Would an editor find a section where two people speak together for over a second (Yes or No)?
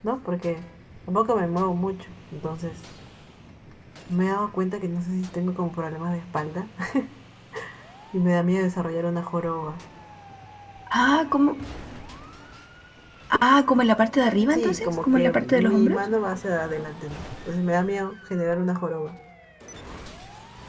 Yes